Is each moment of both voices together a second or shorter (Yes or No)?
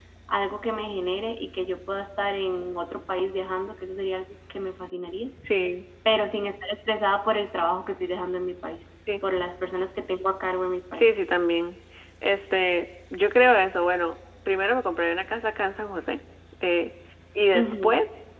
Yes